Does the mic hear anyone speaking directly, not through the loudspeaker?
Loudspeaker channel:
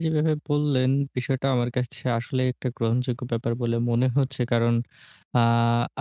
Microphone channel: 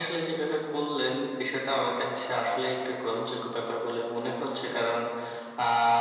No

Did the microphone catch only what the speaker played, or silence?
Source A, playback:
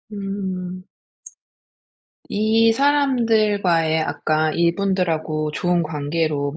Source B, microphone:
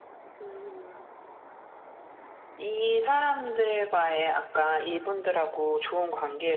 Yes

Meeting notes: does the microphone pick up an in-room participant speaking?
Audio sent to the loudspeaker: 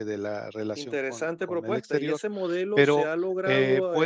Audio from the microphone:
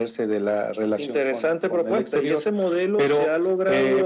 No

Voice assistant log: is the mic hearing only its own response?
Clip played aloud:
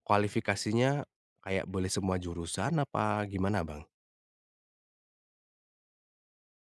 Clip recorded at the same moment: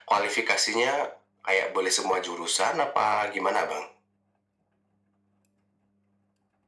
Yes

